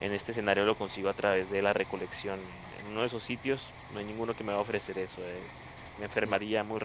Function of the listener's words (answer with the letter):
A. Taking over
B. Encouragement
B